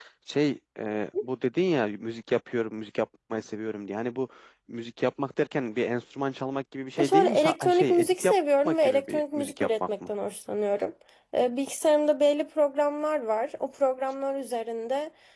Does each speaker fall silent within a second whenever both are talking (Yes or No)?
No